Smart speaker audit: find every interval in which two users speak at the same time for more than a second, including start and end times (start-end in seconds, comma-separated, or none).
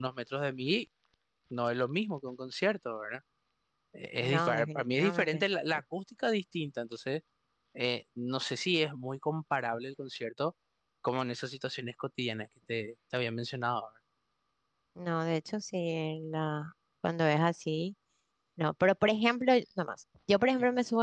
4.2-5.4